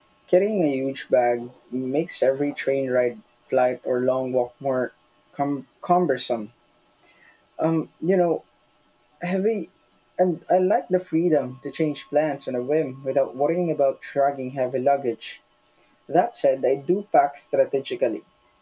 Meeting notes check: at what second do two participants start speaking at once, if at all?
none

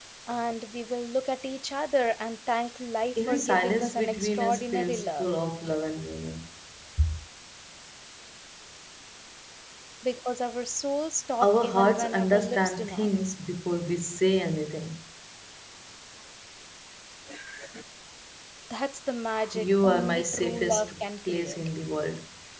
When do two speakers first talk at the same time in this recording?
3.2 s

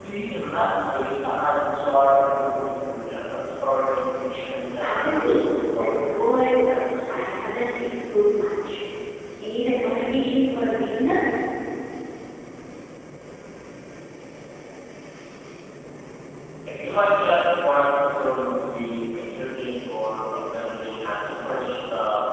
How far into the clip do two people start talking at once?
4.8 s

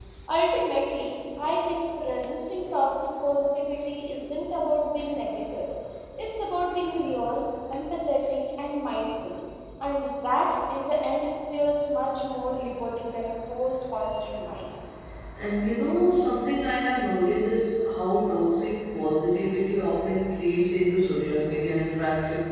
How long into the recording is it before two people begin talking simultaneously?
none

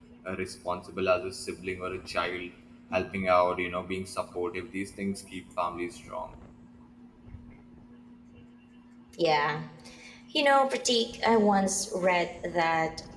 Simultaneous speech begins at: none

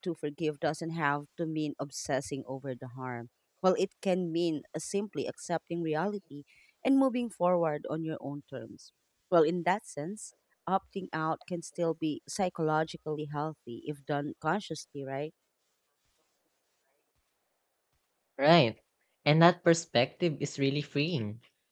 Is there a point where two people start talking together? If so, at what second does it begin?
none

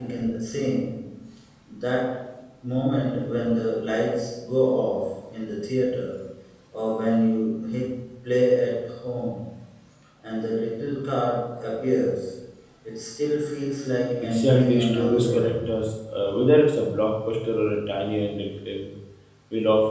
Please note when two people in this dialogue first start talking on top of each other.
14.2 s

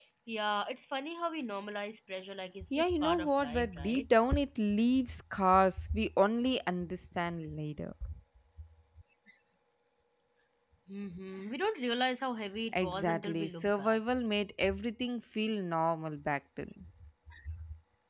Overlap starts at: 2.8 s

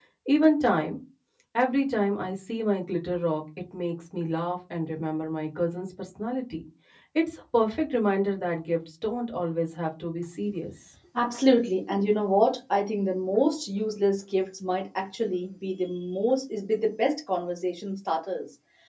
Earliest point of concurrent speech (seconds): none

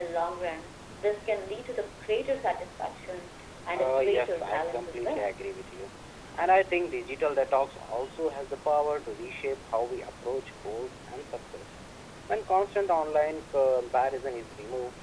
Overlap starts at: 3.7 s

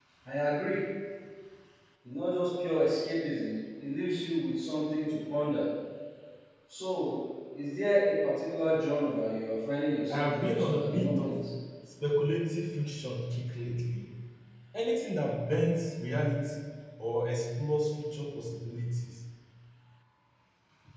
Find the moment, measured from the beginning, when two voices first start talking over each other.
10.1 s

